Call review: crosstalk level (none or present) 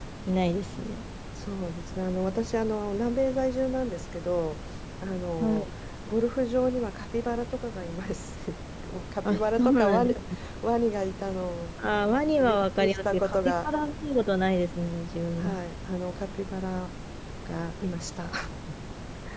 present